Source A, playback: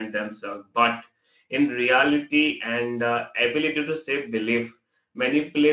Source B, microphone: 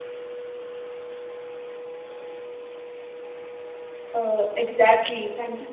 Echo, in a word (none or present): none